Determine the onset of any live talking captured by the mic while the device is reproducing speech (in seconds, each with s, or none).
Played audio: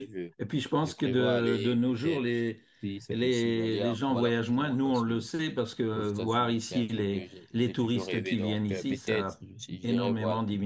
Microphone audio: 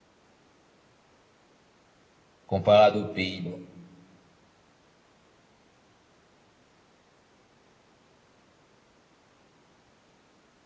2.4 s